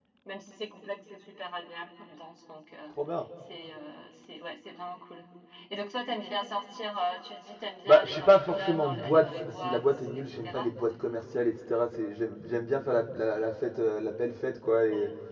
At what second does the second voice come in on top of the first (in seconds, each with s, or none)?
7.9 s